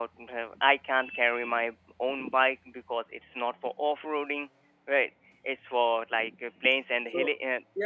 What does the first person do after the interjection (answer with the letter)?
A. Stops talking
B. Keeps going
A